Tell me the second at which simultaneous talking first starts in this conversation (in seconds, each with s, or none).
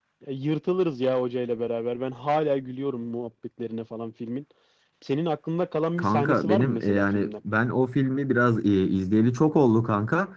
6.0 s